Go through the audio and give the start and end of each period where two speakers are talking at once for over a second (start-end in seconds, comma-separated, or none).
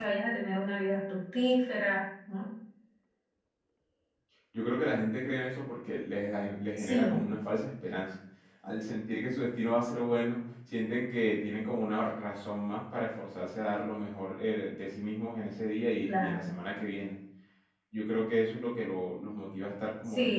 none